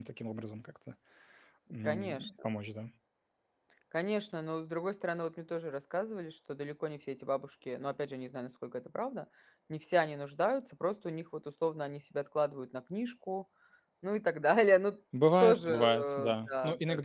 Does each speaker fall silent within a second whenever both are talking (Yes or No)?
No